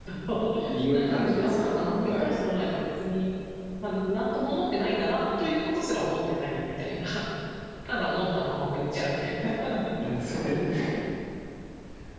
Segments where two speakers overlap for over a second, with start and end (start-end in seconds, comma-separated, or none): 0.9-2.3